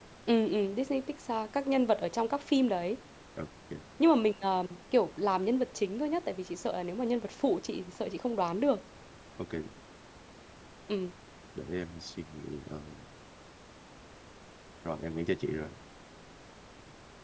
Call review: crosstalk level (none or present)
none